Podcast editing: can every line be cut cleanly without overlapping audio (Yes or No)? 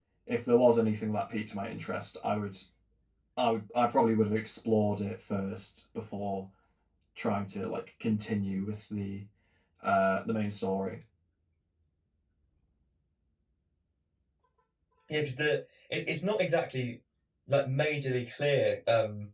Yes